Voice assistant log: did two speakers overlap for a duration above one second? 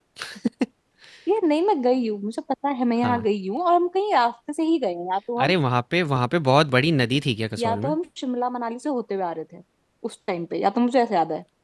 No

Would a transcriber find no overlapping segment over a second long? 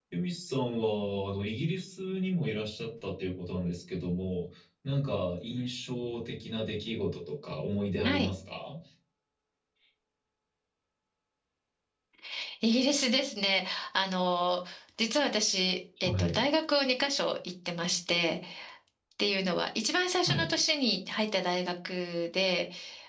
Yes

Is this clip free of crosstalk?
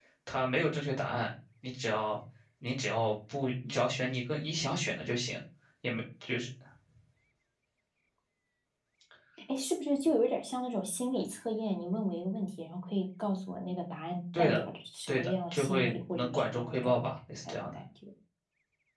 No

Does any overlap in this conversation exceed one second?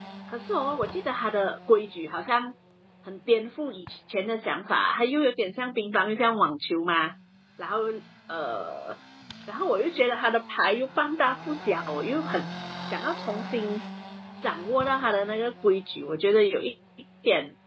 No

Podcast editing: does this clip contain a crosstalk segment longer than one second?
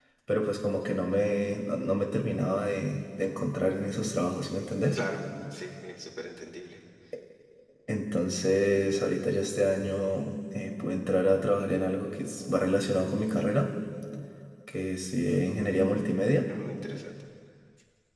No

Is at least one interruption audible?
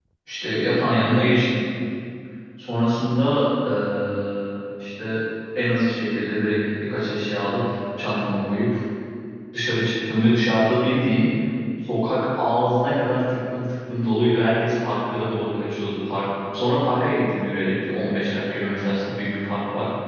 No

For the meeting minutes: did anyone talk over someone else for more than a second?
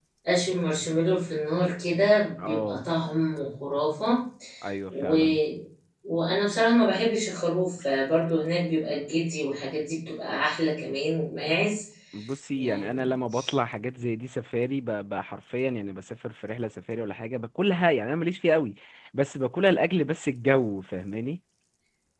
No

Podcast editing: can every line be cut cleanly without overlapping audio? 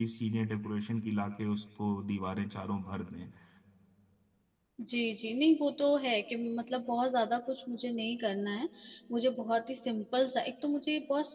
Yes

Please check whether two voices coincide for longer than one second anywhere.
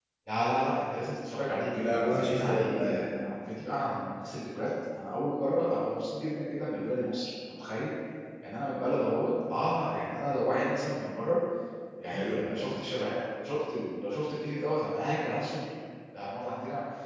Yes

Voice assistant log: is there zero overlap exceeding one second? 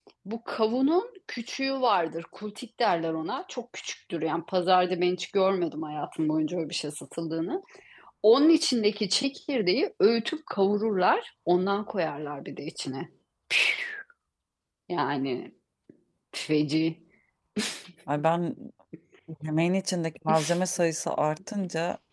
Yes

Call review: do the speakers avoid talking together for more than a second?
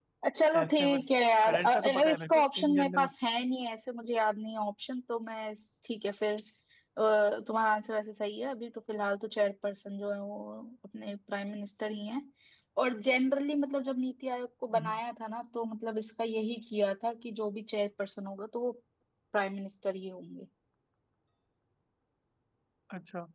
No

